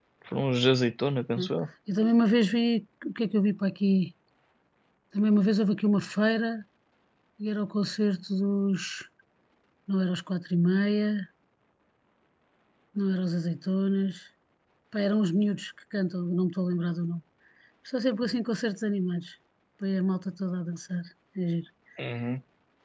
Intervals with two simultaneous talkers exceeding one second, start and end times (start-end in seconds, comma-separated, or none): none